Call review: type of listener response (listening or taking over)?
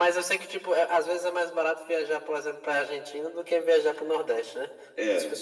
taking over